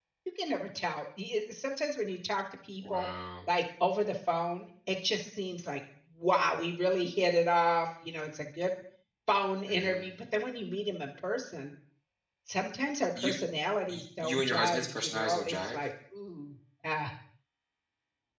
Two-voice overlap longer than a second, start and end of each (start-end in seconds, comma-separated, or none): 13.9-15.8